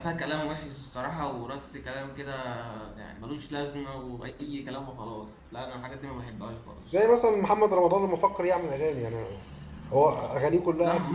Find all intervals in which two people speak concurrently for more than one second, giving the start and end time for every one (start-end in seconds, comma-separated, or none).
none